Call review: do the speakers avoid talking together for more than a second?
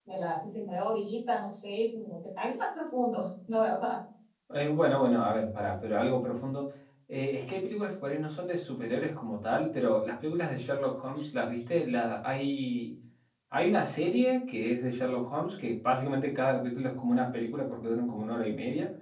Yes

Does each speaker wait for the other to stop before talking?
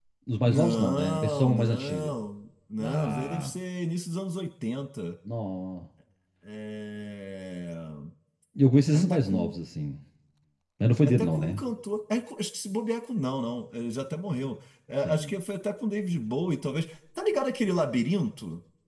No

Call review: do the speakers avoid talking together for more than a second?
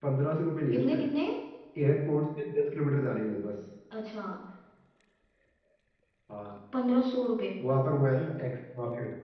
Yes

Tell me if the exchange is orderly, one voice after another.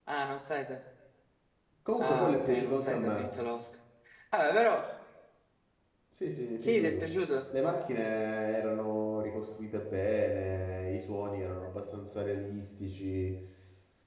No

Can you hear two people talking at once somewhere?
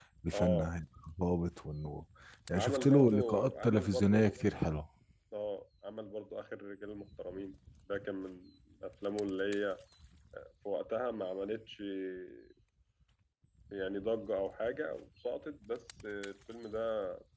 Yes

